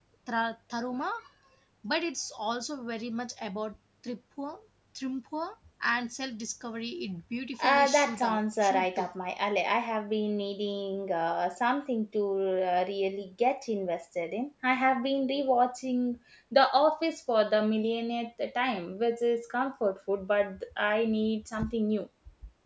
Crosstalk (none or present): present